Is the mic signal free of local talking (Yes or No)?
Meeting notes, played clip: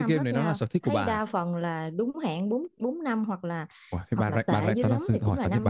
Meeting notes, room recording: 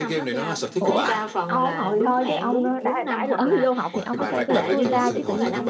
No